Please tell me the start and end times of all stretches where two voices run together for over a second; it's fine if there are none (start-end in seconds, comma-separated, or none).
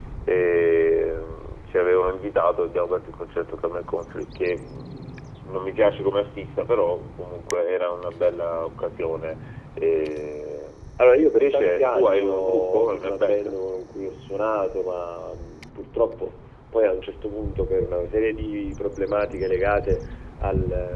11.3-13.6